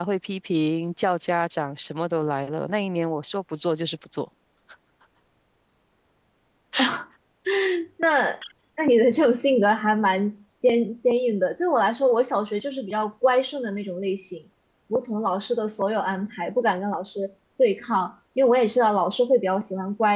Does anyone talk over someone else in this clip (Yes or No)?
No